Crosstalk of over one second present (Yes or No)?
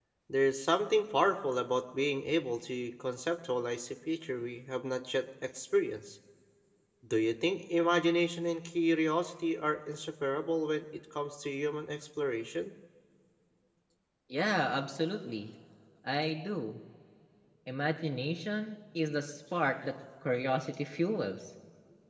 No